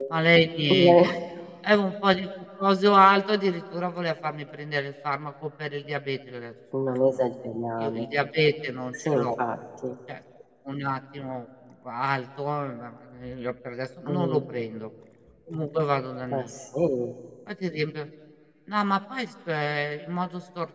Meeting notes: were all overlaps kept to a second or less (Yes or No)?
Yes